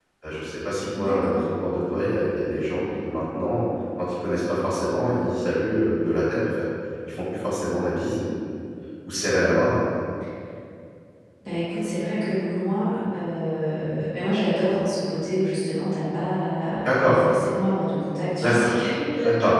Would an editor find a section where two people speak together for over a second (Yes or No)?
No